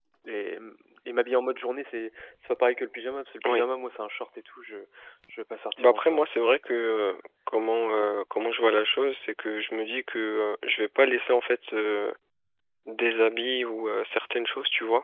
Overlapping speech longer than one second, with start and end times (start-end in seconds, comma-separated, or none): 5.8-7.2